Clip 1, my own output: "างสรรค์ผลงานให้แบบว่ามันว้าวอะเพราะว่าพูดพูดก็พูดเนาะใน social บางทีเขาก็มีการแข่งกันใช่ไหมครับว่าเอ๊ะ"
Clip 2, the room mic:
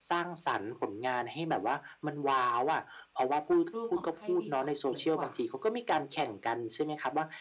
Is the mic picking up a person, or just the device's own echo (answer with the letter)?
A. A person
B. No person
A